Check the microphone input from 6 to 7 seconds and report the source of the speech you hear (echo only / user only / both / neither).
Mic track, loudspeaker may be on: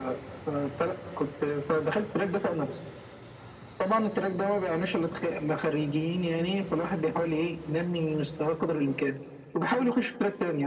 echo only